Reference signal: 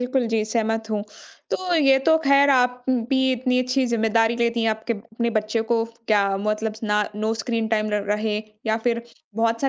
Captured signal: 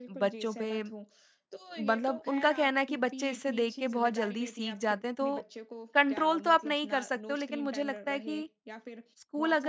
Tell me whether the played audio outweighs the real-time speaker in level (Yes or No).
No